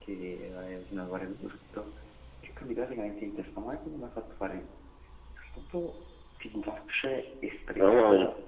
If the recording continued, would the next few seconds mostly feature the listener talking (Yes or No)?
No